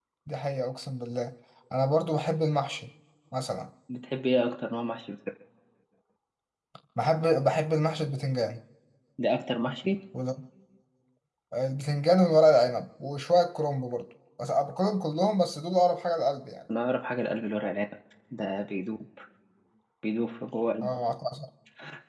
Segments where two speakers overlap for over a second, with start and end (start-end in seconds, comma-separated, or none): none